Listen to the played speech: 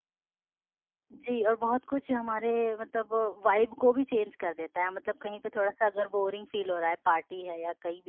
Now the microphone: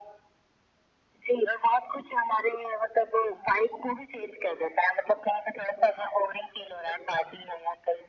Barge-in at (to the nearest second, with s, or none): none